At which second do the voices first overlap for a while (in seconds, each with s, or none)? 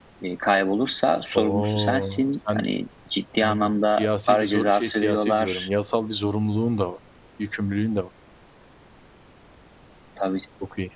1.4 s